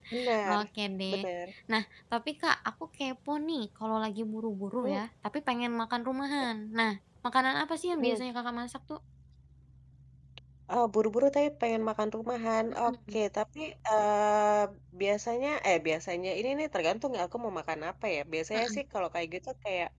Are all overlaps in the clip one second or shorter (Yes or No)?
Yes